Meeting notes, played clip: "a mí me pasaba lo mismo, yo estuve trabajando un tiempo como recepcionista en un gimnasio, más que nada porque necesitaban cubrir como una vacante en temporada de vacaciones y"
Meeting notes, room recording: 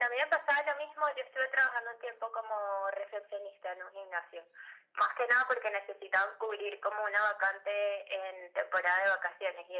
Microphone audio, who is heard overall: echo only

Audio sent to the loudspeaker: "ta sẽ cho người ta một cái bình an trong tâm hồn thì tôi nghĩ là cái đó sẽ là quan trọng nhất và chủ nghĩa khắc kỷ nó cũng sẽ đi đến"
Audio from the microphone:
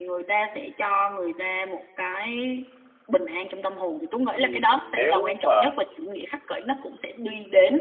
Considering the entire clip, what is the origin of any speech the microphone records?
both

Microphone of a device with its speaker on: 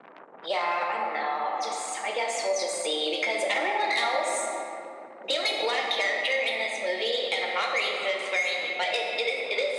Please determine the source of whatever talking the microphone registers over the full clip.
echo only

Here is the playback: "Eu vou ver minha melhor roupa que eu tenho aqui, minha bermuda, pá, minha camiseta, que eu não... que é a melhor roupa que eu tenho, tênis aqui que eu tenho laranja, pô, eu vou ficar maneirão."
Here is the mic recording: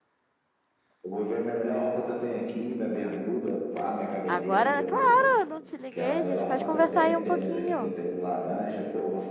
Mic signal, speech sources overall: both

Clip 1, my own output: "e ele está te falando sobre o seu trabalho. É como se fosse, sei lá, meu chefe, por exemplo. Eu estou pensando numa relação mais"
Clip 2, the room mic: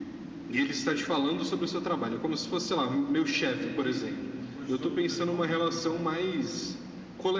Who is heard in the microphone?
both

